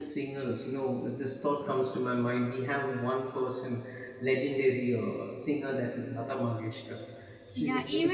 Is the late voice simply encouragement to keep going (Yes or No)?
No